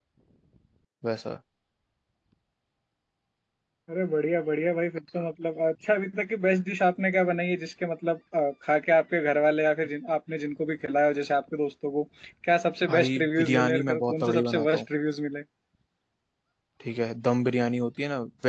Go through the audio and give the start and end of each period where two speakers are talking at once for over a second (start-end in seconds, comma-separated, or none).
12.9-14.8